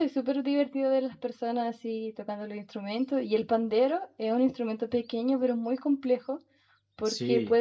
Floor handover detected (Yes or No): No